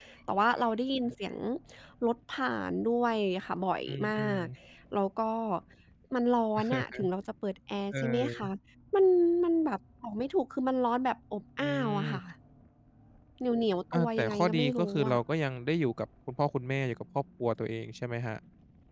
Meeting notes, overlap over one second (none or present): present